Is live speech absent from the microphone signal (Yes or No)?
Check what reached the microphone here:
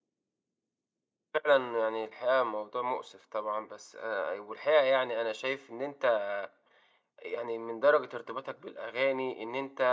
No